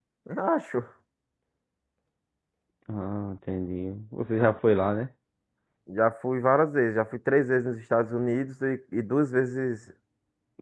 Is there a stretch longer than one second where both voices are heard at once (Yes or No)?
No